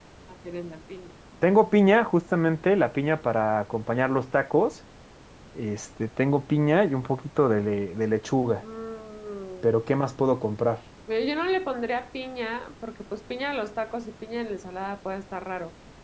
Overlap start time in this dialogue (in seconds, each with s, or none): none